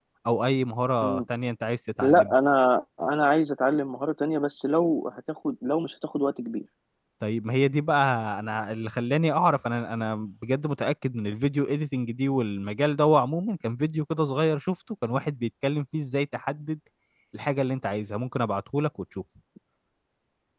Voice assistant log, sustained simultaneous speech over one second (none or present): none